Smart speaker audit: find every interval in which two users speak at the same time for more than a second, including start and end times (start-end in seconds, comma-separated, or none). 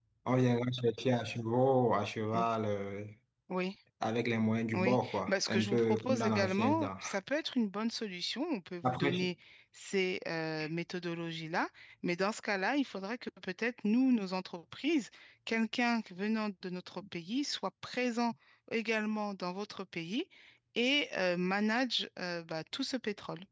4.7-6.9